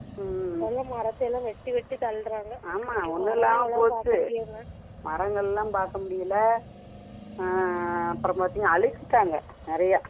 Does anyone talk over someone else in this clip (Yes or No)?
Yes